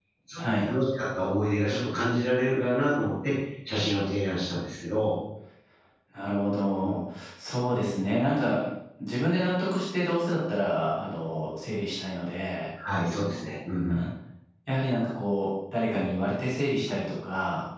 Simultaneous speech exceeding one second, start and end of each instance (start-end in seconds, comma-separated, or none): none